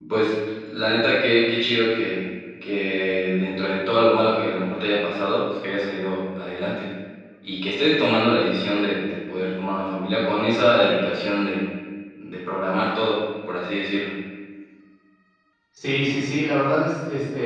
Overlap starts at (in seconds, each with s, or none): none